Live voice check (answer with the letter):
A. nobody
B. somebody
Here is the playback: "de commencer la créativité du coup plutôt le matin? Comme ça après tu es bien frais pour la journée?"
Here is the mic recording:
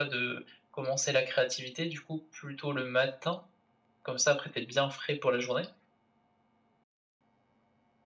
A